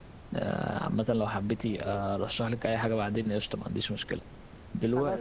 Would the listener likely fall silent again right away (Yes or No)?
Yes